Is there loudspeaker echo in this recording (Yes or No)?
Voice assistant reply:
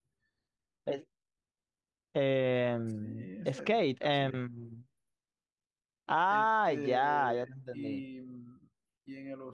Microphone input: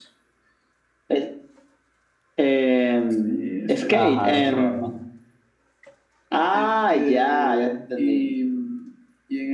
Yes